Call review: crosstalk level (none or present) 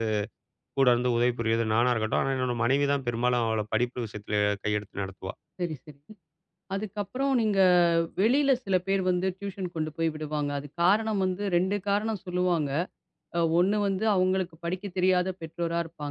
none